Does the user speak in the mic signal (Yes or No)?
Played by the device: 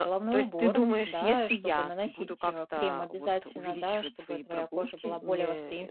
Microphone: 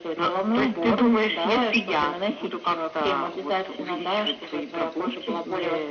No